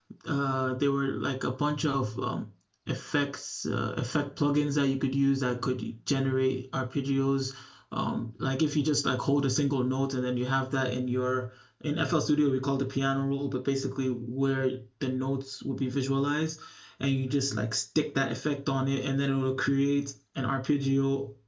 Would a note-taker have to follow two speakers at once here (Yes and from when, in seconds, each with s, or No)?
No